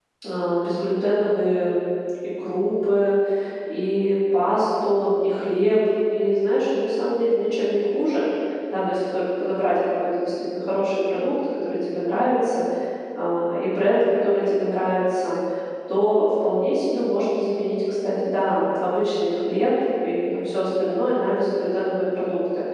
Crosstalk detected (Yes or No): No